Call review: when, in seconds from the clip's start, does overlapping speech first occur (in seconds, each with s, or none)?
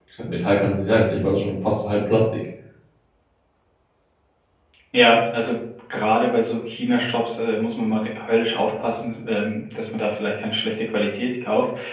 none